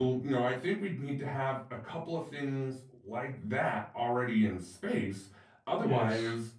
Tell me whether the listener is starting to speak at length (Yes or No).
No